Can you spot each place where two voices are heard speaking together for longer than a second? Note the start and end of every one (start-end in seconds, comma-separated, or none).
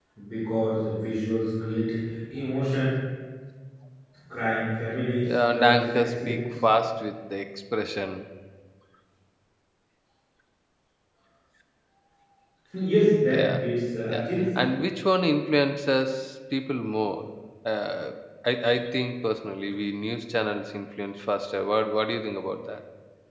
5.2-6.5